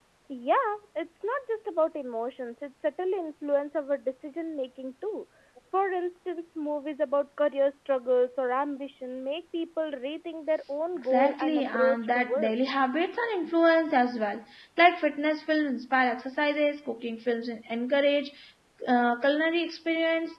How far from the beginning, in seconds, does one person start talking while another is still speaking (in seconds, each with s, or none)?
11.0 s